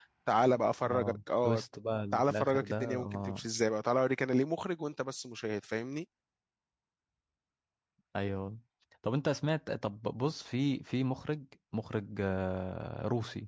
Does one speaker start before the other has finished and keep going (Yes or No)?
Yes